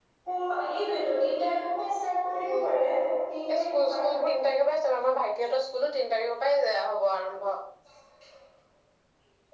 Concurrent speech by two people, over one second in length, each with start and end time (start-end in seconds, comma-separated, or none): none